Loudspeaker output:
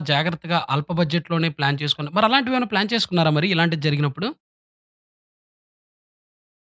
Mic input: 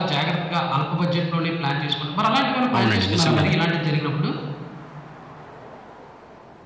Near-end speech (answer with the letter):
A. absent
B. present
B